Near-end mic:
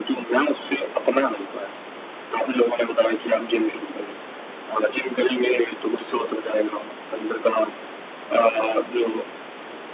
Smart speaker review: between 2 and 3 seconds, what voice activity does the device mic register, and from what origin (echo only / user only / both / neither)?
echo only